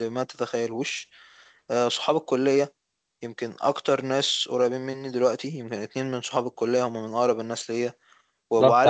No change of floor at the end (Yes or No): No